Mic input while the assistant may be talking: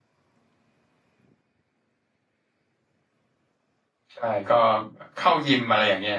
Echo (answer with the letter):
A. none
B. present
A